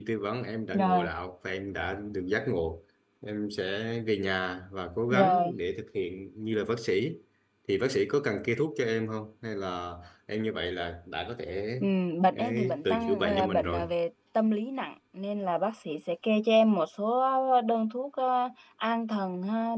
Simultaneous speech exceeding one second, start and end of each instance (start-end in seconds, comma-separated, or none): 12.3-13.8